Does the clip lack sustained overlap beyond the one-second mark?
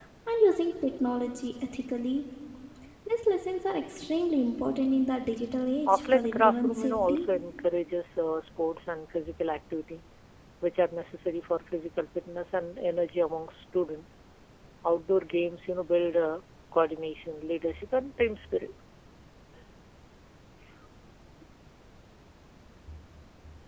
No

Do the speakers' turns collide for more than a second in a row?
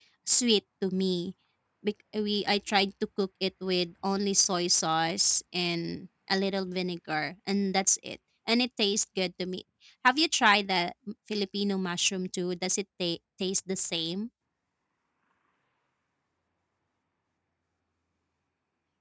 No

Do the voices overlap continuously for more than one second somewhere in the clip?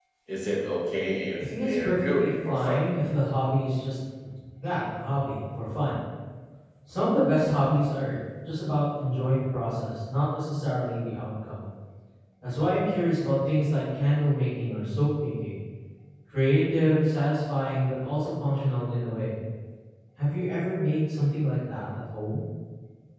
Yes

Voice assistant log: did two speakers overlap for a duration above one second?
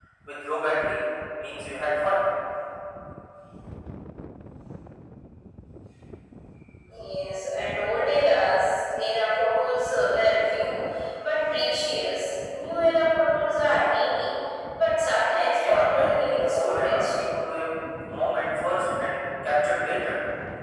Yes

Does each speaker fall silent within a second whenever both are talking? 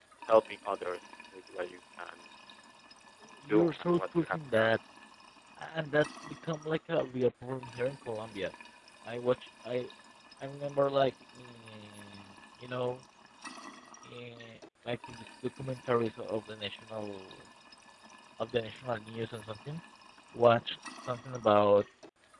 No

